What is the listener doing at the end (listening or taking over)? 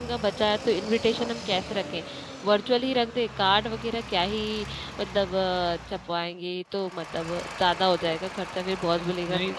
listening